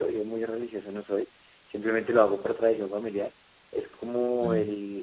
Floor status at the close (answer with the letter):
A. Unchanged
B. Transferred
A